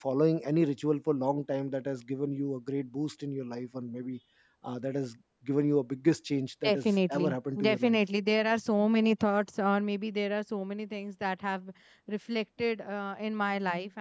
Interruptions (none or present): present